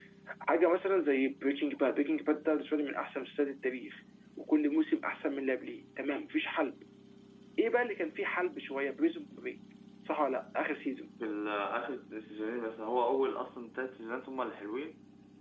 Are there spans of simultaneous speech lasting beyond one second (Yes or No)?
No